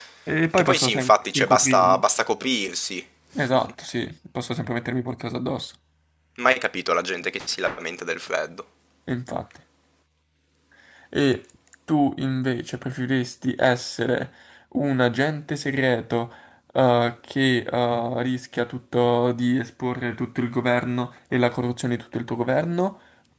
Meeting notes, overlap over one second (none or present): present